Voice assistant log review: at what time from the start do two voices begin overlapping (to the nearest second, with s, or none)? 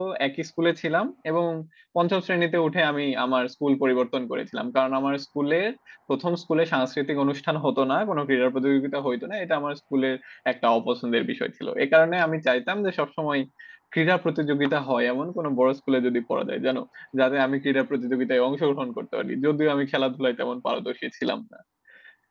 none